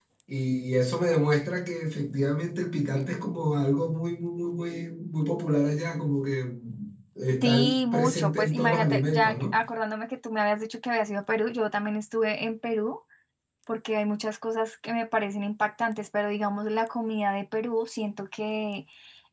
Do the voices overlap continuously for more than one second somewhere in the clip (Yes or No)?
Yes